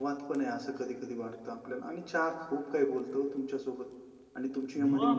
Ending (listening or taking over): listening